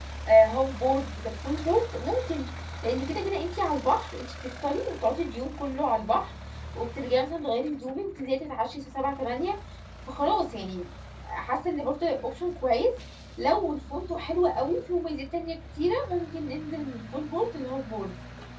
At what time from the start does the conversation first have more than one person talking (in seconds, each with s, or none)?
none